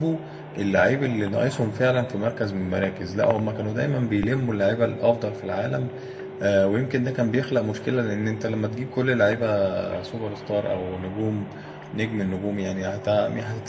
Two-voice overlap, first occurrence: none

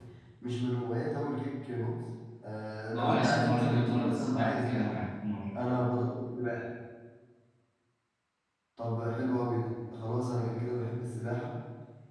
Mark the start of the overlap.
2.9 s

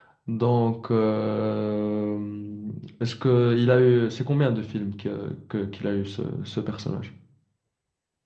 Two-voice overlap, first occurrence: none

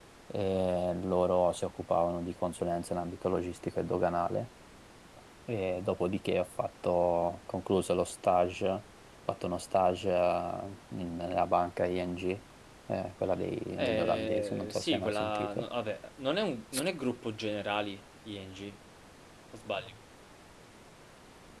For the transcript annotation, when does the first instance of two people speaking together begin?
13.8 s

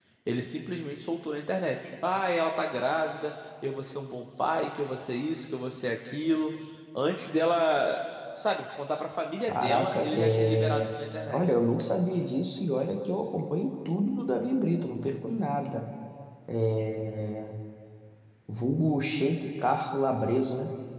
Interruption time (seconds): 9.5 s

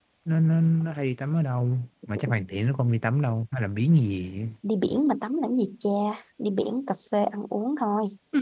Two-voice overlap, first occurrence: none

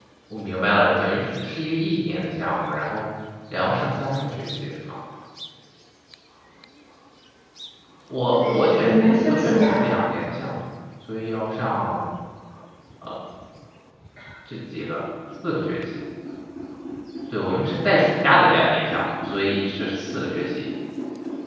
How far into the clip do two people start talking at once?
8.3 s

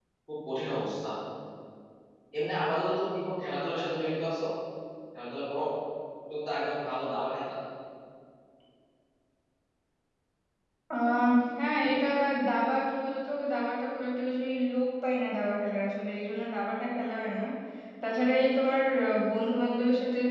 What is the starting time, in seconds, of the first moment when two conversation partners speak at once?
none

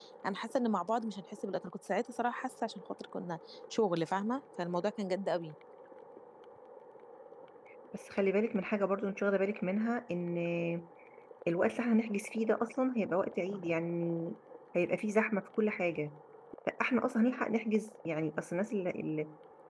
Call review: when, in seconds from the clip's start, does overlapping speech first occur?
none

